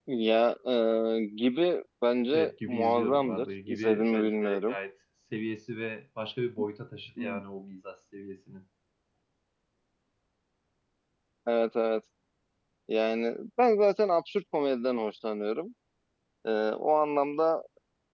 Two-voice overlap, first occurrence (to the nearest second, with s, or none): 2 s